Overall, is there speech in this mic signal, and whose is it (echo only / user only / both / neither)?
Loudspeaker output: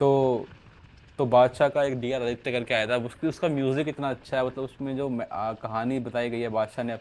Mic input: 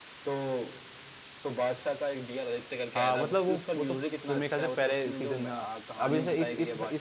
both